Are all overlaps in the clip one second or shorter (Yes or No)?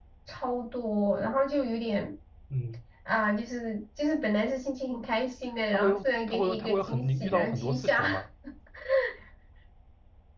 No